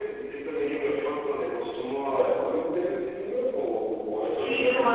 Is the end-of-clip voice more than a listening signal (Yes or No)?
Yes